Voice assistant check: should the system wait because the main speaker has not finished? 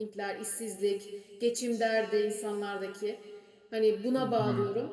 Yes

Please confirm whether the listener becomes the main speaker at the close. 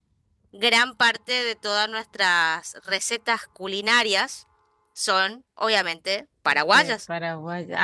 Yes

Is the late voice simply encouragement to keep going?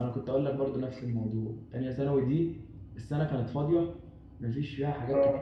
Yes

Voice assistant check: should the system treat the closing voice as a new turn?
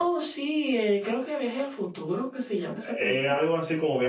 Yes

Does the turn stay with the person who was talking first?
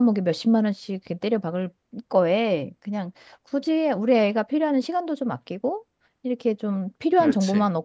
Yes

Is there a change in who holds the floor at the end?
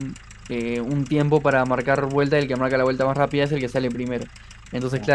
No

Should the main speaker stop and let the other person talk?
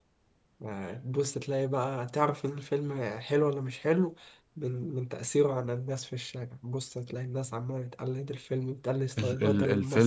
Yes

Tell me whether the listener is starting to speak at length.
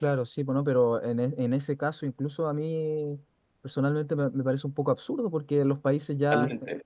No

